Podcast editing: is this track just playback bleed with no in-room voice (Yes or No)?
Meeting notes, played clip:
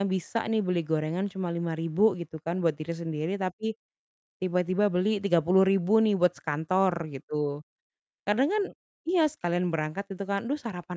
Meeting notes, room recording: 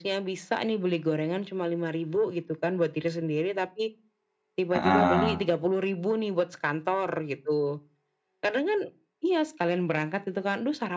No